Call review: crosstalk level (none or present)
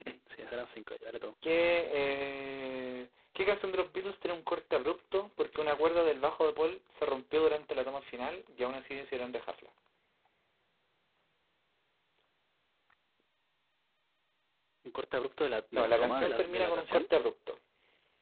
present